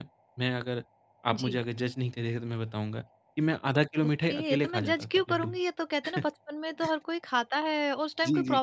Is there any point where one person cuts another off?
Yes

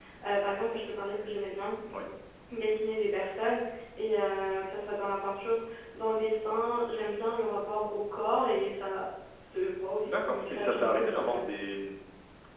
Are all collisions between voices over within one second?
No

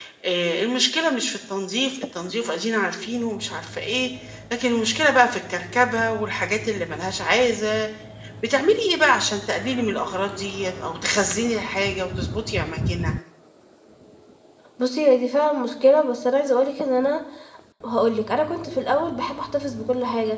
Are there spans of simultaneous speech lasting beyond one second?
No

